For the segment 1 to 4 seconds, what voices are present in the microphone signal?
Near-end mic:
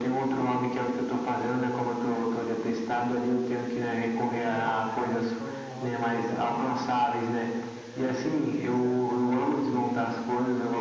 echo only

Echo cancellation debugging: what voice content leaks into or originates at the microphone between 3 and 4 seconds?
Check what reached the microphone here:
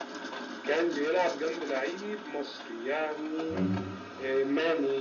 both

